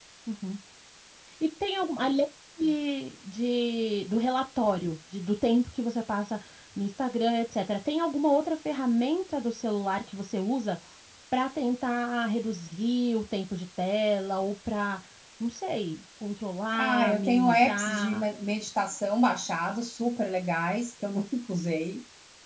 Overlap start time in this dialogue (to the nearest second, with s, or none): 17 s